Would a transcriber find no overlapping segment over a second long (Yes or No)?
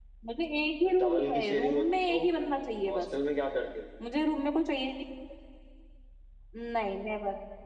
No